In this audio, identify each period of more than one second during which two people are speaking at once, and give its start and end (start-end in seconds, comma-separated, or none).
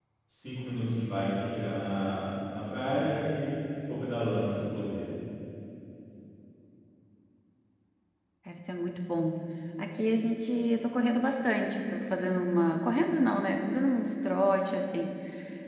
none